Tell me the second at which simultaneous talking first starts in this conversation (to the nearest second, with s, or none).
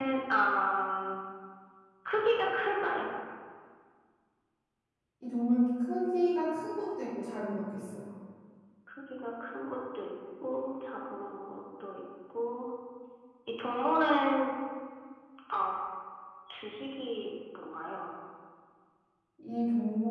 none